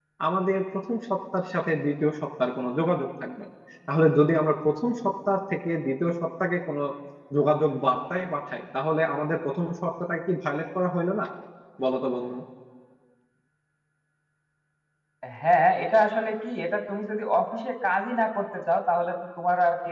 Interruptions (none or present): none